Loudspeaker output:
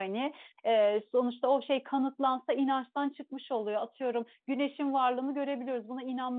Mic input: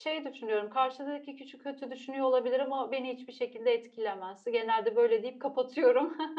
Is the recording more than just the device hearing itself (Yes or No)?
Yes